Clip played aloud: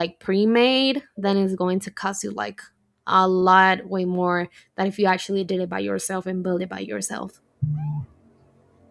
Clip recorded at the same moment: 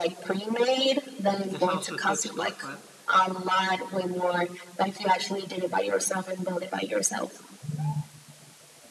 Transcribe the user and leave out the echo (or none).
is also a good storefront